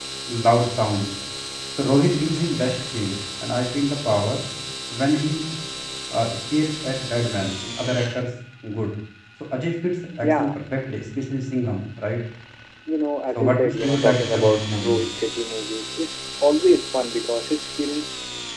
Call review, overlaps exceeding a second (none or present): present